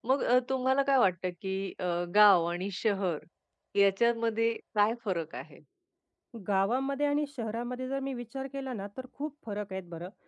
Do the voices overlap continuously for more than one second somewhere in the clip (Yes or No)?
No